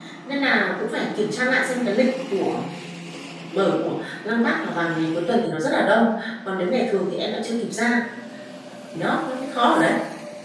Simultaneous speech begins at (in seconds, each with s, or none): none